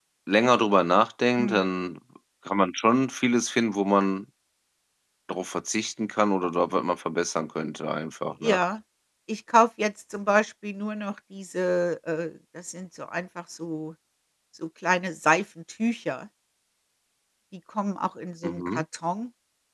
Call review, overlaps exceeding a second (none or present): none